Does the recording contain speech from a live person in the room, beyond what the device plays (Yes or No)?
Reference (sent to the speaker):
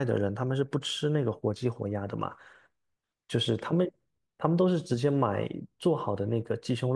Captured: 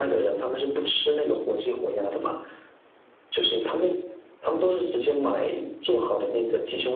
No